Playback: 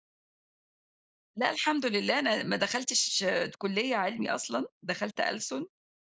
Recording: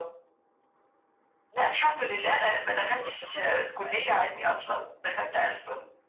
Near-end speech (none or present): present